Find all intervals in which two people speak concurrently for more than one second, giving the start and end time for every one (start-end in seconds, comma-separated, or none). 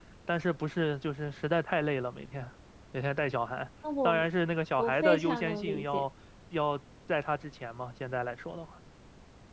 4.8-6.0